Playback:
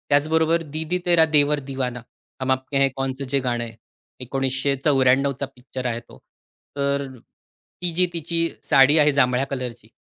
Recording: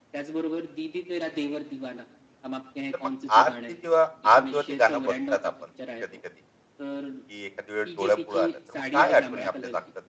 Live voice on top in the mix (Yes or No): Yes